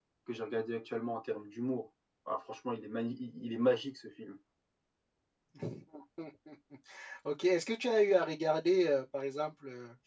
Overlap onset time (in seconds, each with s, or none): none